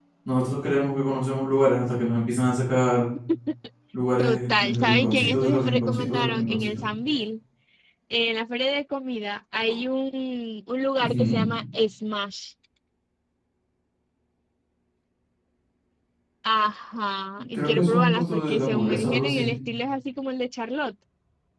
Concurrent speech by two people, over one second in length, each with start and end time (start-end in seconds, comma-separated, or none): 4.2-6.8, 17.5-19.5